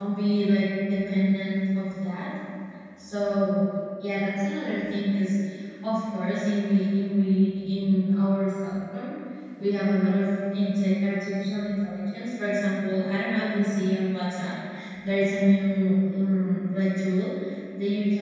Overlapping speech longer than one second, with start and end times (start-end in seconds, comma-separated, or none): none